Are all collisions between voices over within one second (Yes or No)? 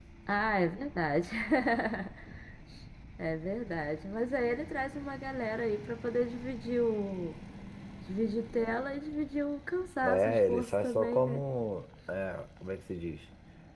No